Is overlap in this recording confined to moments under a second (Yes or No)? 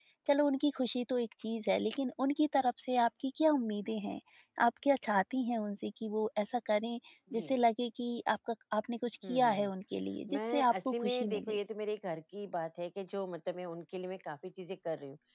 No